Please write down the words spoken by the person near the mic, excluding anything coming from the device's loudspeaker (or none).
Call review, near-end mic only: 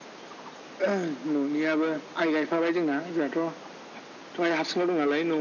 none